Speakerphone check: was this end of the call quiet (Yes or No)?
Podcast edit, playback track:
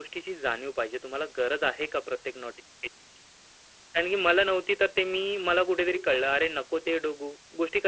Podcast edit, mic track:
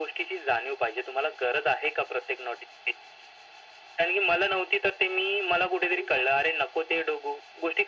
Yes